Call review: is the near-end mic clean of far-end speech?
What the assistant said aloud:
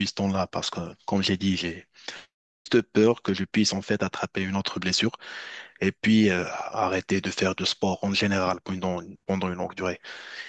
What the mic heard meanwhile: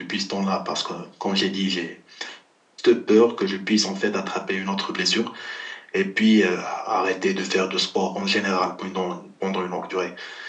No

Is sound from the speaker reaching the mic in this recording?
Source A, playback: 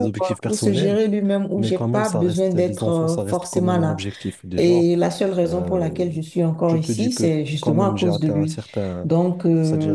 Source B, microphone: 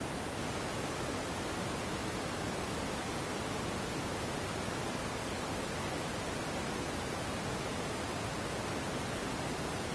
No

